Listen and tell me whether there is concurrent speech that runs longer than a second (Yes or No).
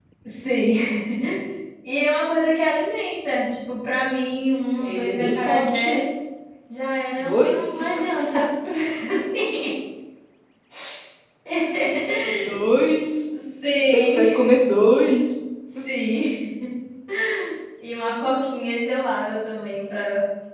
Yes